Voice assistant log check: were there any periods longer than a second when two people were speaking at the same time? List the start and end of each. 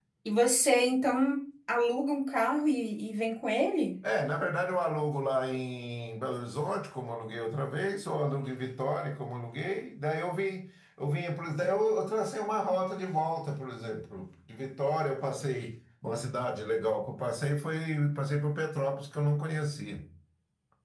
none

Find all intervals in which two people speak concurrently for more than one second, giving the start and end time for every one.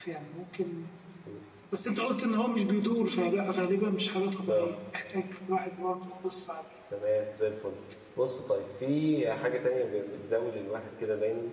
none

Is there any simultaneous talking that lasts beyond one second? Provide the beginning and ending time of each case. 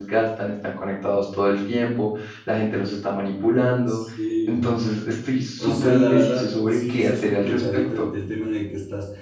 5.6-8.1

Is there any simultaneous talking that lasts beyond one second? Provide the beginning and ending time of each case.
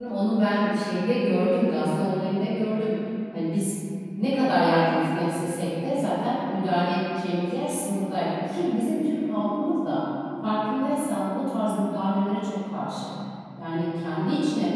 none

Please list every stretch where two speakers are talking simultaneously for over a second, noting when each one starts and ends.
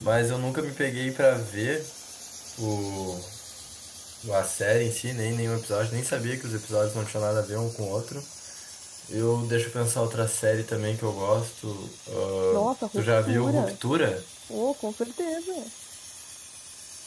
12.5-13.7

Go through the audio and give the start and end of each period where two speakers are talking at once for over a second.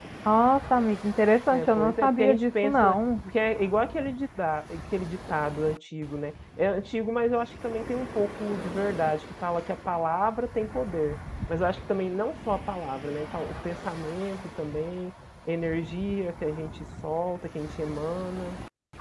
1.5-3.0

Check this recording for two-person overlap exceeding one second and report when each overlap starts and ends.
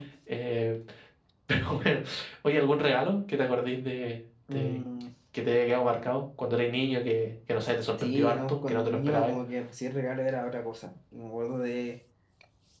8.0-9.4

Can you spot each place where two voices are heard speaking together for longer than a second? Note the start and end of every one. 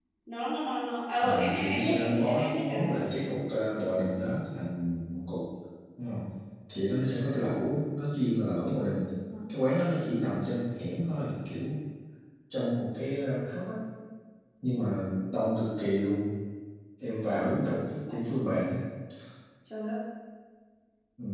1.2-2.9

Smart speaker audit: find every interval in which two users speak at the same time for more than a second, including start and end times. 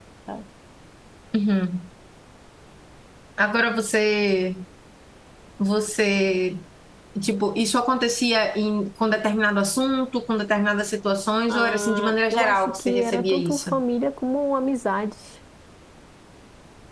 11.5-13.7

